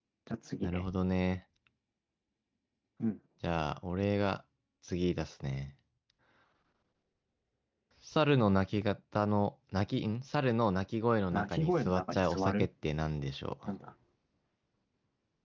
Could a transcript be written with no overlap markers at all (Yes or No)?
No